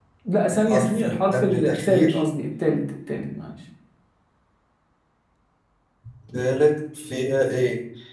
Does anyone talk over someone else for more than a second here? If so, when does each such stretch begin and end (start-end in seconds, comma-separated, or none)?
0.7-2.2